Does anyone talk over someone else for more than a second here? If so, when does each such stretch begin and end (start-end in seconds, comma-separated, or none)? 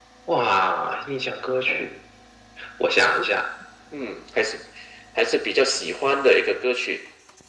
none